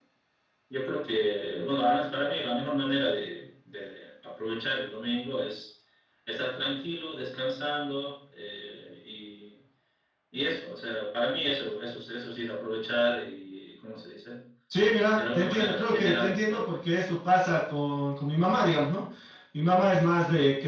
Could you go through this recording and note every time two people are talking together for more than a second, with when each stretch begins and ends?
15.1-16.7

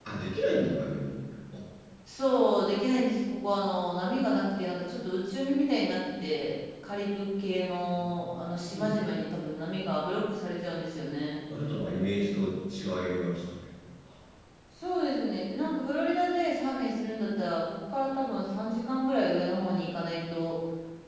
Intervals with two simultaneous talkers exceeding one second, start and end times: none

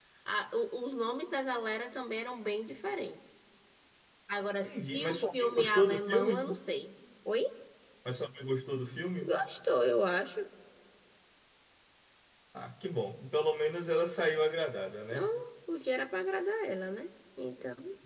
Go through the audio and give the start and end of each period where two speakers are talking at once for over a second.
4.6-6.4

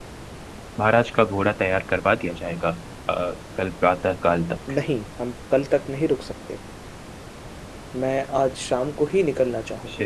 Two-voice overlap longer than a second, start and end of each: none

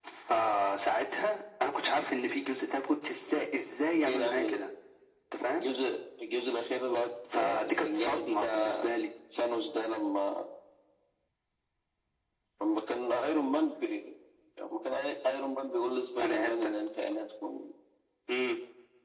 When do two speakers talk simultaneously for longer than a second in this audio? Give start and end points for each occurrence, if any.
7.3-8.8

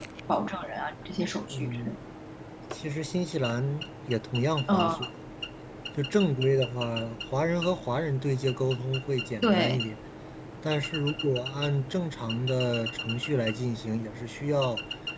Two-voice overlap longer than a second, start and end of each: none

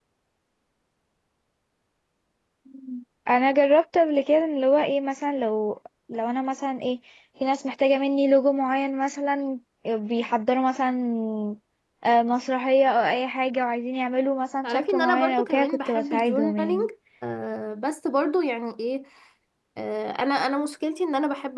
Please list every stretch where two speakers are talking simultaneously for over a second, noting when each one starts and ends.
14.6-16.9

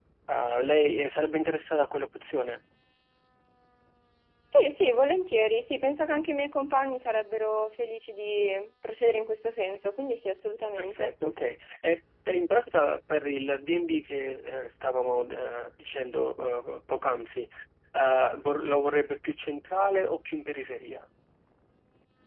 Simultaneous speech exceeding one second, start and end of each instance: none

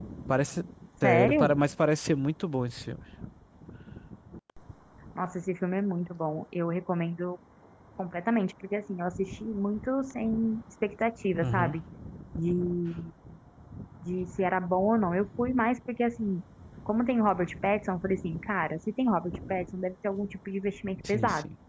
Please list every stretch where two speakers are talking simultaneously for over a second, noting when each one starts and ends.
none

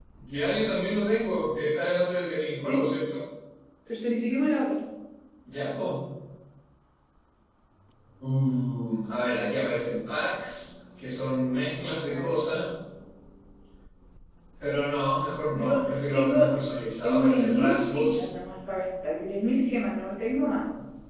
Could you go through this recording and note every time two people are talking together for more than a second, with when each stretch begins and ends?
17.0-18.2

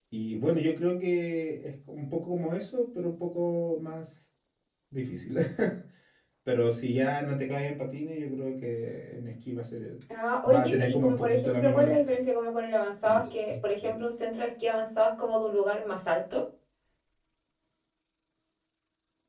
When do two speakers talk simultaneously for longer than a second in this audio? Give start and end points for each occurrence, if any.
10.5-12.1

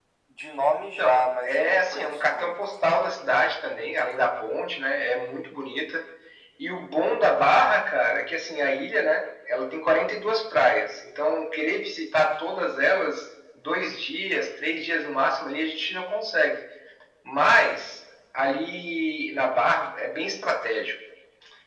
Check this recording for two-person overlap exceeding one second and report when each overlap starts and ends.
0.8-2.5

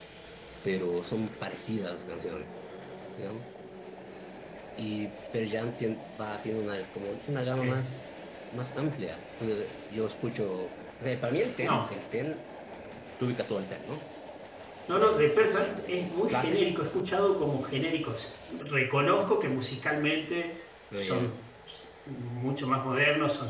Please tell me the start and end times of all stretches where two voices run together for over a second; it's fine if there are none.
15.0-16.6

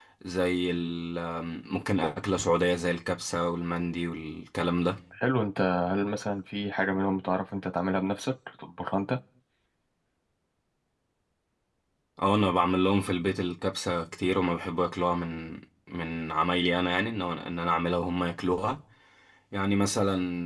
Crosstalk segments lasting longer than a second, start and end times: none

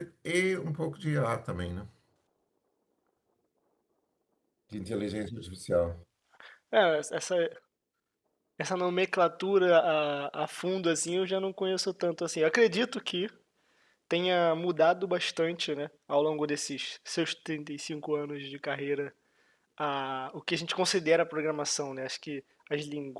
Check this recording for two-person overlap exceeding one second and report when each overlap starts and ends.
none

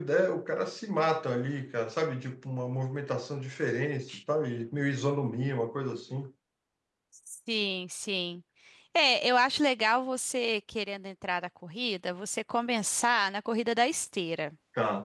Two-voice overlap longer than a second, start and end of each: none

